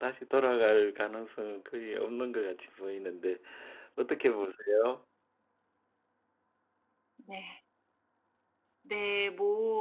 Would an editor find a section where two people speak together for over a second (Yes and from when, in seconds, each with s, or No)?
No